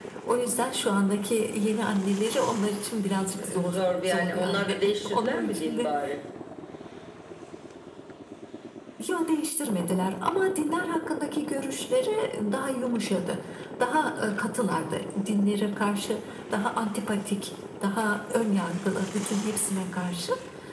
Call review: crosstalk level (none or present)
present